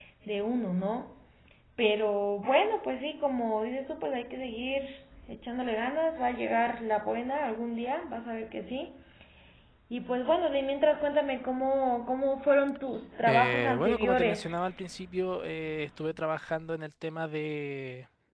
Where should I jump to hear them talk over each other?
13 s

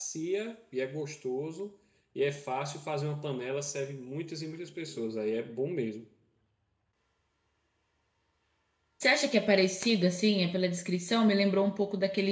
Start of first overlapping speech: none

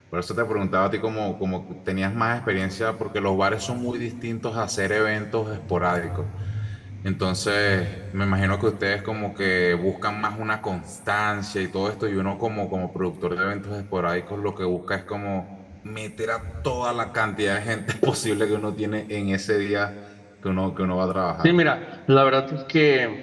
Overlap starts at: none

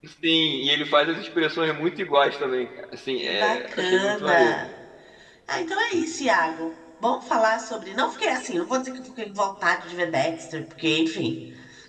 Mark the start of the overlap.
3 s

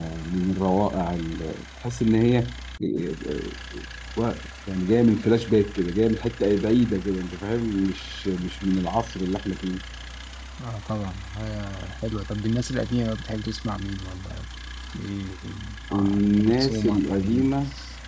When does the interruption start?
16 s

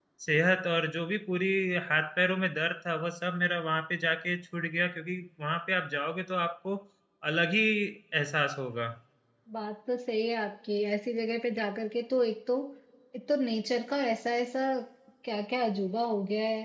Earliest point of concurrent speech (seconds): none

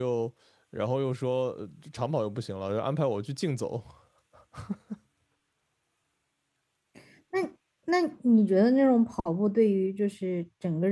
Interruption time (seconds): none

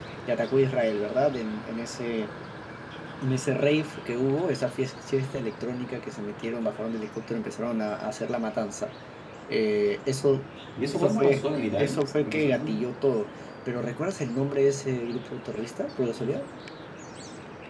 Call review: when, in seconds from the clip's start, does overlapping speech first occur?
11 s

